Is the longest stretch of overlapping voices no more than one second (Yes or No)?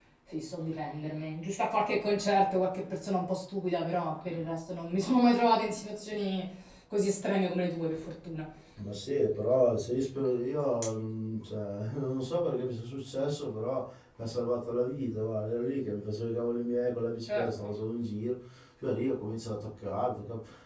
Yes